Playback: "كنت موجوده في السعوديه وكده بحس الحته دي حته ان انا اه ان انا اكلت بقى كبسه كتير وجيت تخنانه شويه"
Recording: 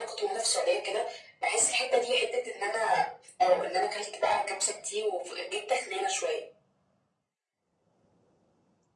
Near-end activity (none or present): none